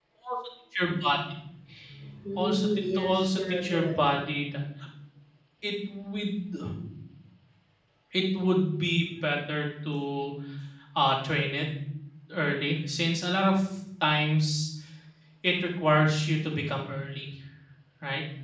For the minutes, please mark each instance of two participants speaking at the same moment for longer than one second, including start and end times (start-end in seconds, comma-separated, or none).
2.4-3.9